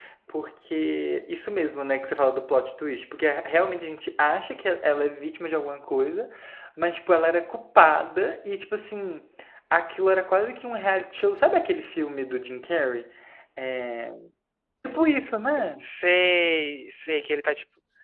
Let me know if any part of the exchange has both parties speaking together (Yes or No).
No